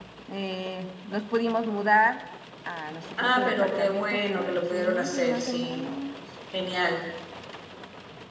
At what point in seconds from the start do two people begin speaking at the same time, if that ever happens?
3.2 s

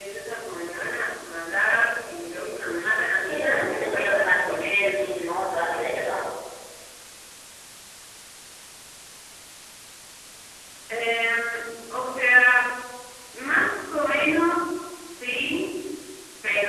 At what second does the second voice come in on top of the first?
3.3 s

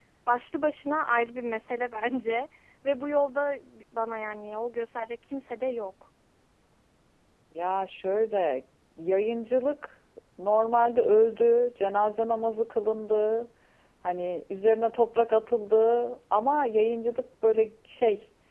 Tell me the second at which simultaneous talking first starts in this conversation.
none

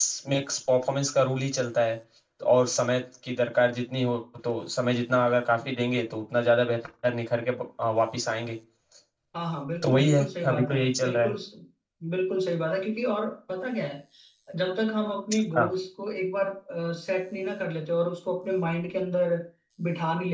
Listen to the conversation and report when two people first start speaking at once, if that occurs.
9.8 s

